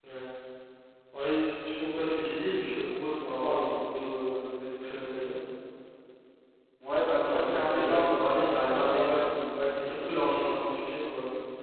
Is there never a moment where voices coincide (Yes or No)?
No